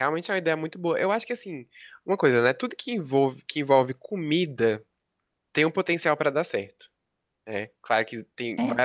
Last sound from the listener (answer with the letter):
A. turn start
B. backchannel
B